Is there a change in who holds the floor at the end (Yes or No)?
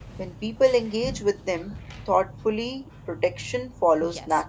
Yes